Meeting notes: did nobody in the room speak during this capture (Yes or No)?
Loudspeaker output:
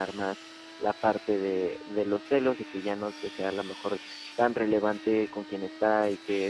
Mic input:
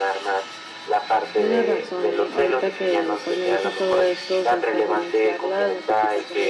No